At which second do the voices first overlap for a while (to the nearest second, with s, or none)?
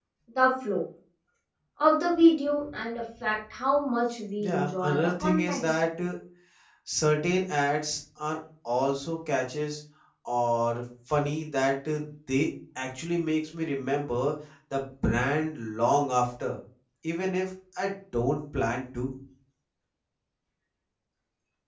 4 s